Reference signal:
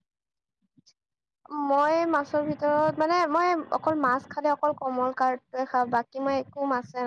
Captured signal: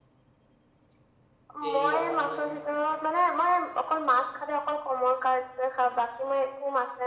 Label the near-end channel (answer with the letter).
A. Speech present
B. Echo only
A